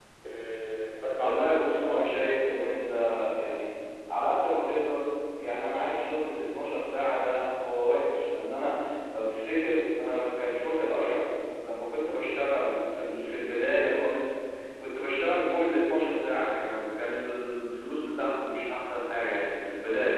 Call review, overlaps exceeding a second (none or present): present